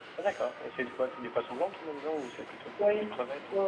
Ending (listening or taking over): taking over